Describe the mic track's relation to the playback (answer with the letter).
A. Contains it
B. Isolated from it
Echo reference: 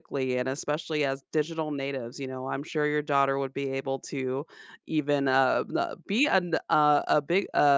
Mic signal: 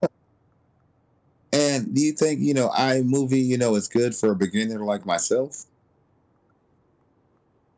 B